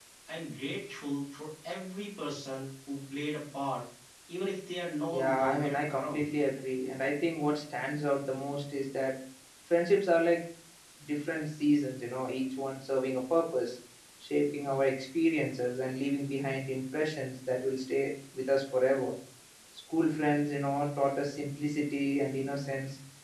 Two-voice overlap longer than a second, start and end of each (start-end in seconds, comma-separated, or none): 5.1-6.3